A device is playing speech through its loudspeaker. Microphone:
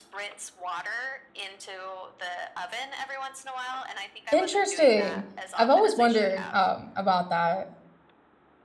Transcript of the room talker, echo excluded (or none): Interesting. I've always wondered um about that.